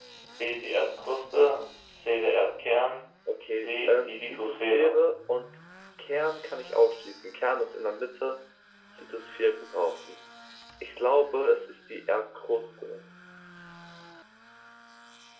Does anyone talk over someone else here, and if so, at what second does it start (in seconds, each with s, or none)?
3.6 s